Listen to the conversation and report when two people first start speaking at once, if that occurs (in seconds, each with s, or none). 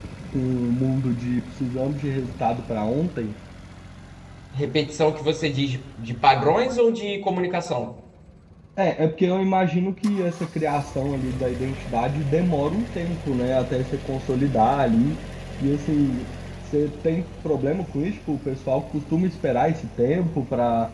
none